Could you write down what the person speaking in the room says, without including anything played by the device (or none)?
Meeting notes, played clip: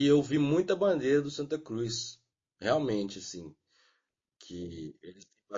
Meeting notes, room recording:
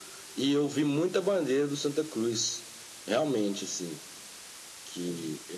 none